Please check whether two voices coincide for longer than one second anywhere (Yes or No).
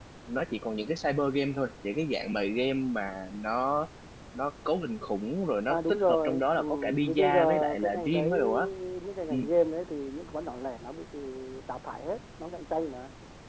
Yes